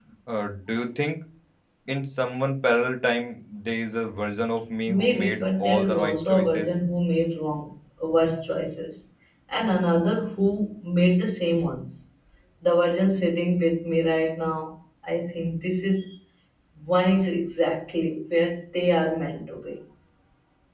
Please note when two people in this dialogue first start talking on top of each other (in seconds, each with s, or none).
4.9 s